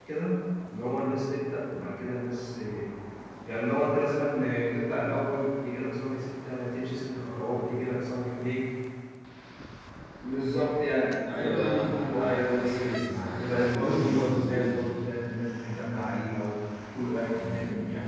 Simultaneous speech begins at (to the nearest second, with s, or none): 11 s